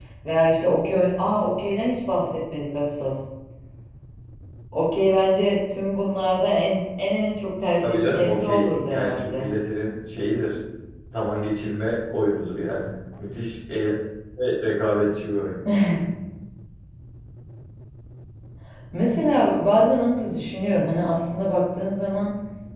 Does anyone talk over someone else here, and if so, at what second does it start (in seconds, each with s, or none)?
7.8 s